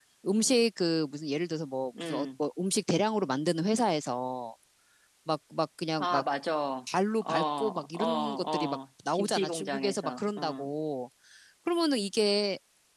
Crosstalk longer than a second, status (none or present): present